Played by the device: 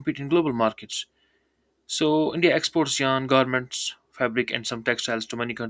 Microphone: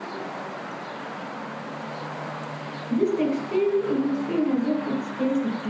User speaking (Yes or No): Yes